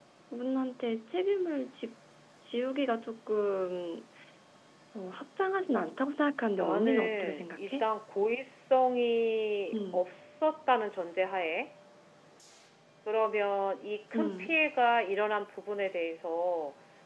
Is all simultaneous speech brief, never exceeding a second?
No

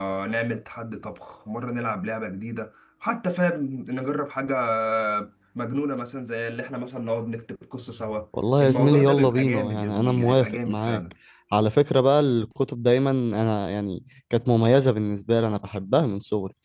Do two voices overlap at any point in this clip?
Yes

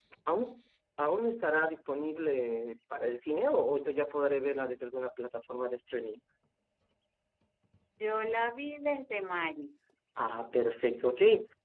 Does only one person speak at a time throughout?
Yes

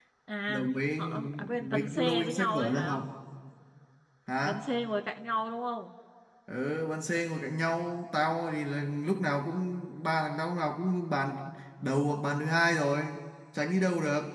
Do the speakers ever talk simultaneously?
Yes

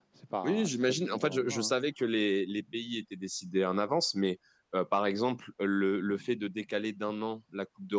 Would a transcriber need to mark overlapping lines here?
Yes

